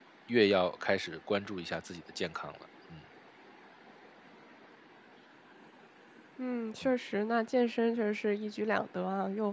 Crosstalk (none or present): none